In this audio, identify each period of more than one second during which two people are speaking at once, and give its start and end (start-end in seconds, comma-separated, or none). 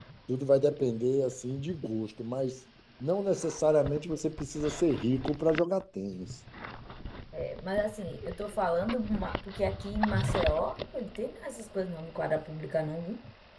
none